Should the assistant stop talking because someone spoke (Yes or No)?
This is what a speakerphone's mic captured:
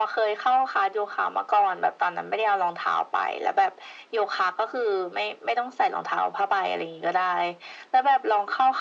No